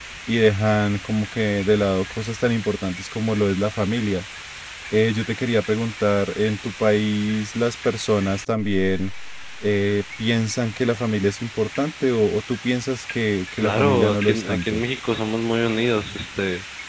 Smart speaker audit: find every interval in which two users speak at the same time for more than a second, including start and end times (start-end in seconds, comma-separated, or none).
13.6-14.8